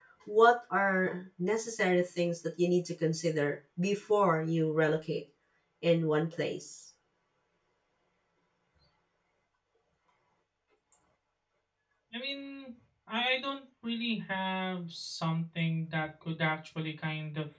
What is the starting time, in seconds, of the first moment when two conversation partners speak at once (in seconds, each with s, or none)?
none